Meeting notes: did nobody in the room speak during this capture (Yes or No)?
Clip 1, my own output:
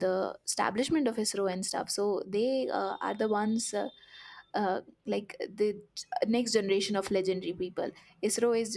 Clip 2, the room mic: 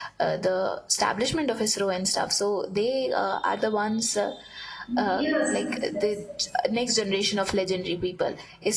No